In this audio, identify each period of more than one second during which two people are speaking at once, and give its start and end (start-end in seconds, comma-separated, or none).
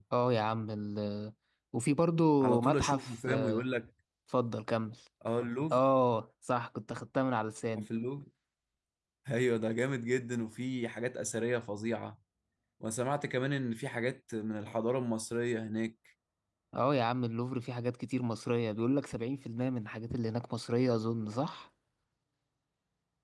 2.4-3.7